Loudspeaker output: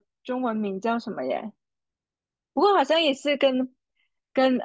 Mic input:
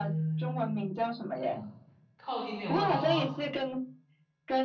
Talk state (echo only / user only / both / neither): both